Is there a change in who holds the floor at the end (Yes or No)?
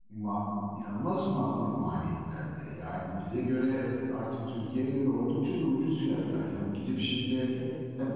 No